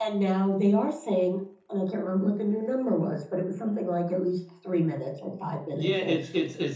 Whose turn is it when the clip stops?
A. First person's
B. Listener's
B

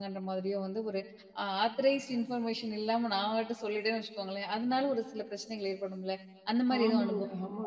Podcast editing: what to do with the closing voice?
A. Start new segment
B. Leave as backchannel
A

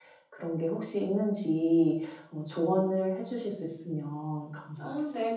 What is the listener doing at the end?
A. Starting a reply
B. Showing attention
A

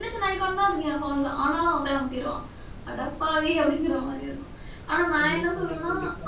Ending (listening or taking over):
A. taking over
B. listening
B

